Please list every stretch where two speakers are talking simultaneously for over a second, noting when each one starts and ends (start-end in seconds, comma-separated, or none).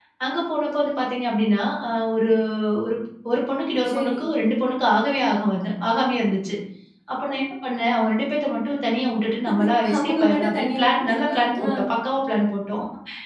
10.0-11.7